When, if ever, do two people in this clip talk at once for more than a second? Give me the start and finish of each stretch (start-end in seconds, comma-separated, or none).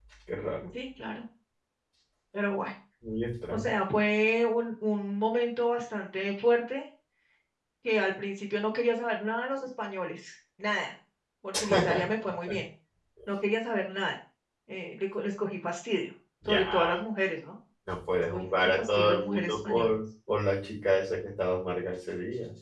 18.3-19.9